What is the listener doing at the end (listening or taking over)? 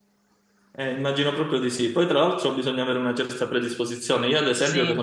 listening